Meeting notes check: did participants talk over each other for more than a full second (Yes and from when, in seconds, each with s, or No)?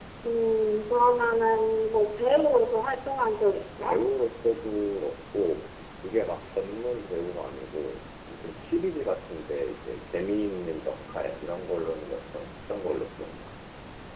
No